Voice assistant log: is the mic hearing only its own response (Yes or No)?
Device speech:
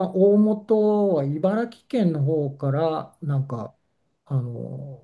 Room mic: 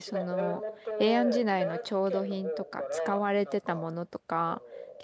No